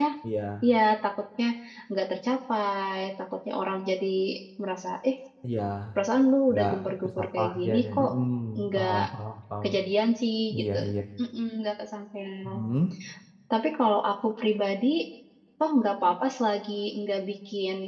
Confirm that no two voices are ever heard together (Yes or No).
No